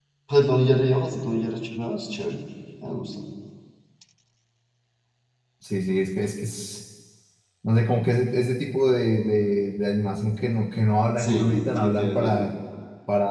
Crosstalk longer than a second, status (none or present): present